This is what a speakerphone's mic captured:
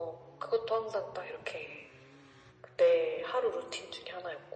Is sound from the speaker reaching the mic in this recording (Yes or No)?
Yes